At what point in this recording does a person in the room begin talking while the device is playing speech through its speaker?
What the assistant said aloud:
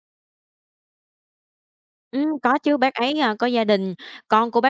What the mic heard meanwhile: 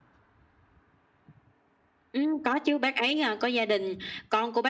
none

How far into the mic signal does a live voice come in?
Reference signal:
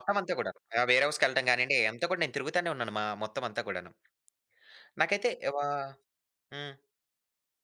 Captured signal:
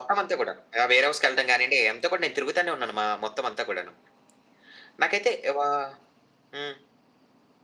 none

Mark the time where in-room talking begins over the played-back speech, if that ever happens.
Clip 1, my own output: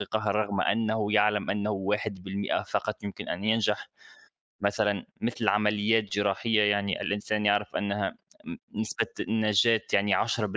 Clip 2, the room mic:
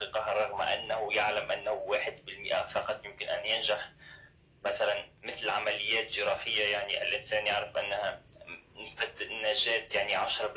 none

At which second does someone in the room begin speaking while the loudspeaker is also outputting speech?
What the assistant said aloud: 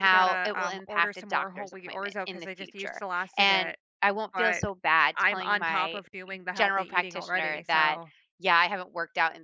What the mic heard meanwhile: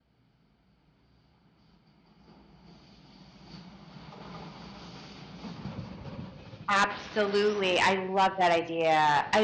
6.7 s

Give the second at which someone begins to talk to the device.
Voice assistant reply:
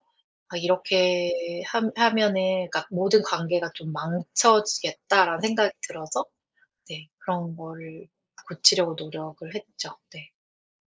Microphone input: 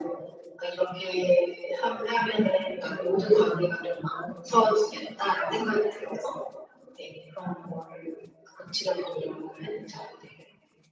none

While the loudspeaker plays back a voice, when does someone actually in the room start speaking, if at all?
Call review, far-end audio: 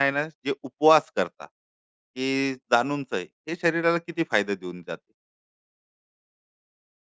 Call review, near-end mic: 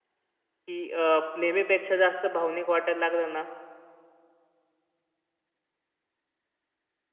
0.5 s

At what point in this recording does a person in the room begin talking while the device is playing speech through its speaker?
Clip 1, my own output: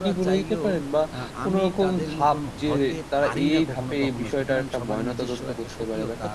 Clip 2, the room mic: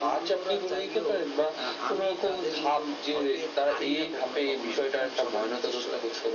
none

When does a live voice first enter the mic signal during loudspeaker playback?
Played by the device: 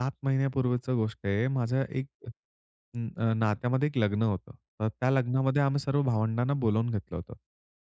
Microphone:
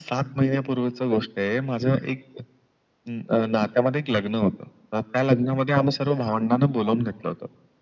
none

